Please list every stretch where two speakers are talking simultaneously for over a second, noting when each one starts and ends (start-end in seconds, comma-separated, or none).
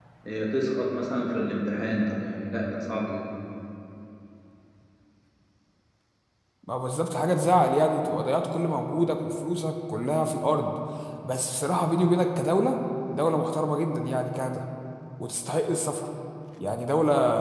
none